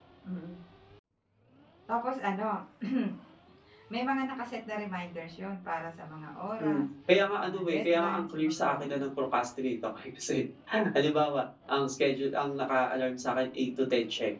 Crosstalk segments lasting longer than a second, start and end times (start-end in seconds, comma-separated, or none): 7.4-9.1